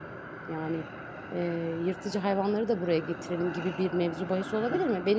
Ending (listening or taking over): listening